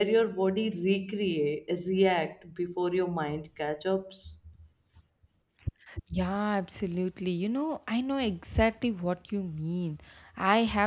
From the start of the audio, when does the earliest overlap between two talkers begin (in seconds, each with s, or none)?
none